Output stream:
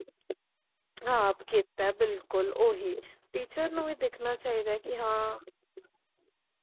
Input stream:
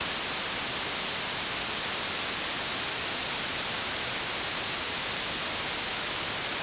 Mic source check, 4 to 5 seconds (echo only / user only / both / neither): neither